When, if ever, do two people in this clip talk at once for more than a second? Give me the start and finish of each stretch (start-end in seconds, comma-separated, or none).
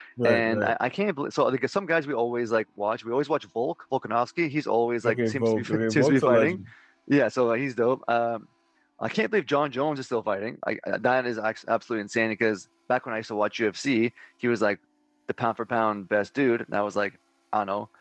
5.1-6.6